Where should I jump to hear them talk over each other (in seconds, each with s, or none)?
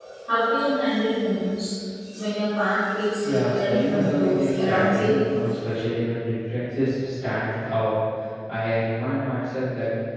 3.2 s